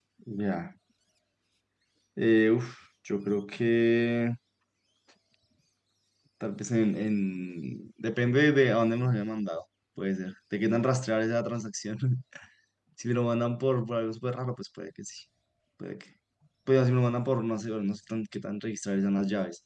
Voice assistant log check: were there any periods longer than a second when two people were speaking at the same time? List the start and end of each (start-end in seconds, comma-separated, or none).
none